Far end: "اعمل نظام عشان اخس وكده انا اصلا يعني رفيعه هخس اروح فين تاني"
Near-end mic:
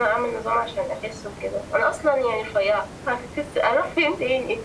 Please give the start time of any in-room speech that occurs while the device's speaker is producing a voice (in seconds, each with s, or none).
none